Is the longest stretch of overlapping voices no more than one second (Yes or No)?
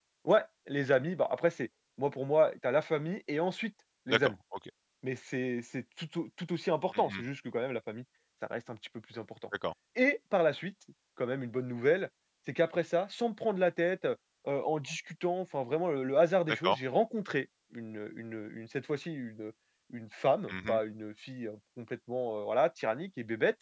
Yes